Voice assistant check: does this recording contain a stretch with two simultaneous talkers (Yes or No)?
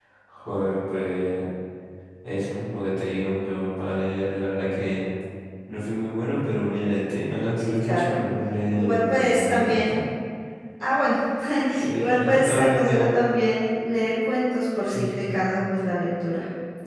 Yes